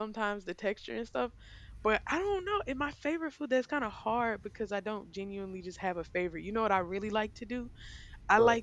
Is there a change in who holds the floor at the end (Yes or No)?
No